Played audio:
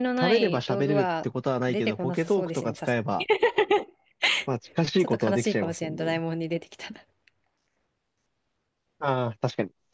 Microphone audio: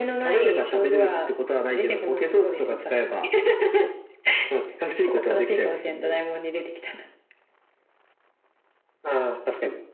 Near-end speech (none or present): none